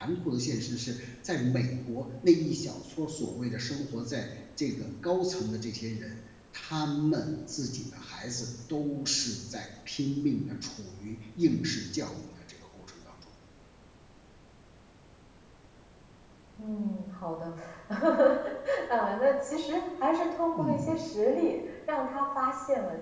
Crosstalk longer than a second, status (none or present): none